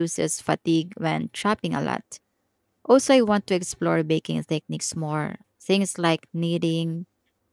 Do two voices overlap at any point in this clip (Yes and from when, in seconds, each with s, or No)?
No